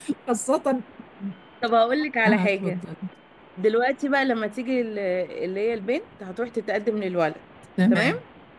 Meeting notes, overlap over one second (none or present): none